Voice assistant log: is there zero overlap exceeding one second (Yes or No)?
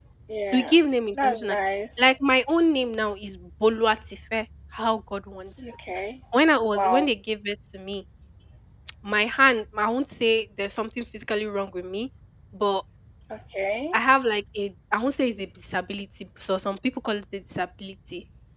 Yes